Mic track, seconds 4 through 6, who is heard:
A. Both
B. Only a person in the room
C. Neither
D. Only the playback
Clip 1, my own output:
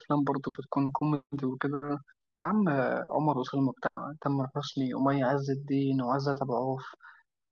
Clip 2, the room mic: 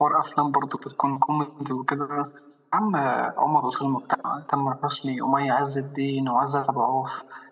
D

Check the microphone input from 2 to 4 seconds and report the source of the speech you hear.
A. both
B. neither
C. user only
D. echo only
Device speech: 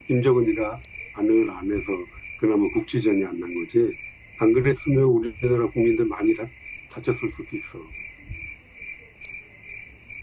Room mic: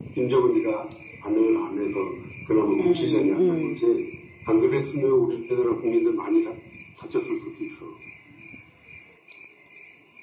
A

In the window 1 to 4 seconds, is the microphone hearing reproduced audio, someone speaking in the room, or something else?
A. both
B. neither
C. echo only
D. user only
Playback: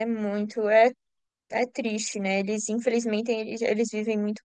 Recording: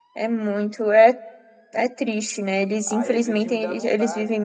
A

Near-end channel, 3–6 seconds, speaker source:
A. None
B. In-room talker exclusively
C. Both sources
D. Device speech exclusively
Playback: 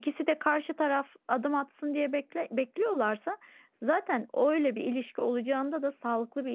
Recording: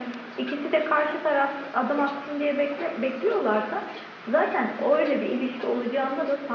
D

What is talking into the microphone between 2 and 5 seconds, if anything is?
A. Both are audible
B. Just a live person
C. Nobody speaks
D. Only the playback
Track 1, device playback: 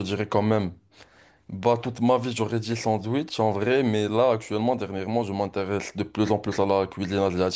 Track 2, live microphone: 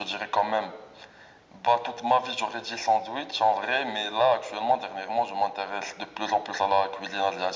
D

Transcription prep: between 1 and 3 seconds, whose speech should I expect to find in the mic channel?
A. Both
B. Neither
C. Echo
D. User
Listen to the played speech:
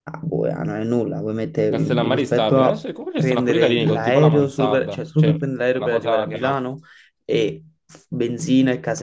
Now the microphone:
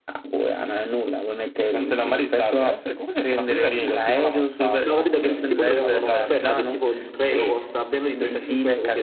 C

